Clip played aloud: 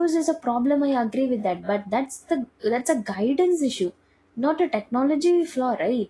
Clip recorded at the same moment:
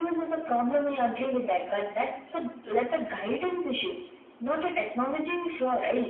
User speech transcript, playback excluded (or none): none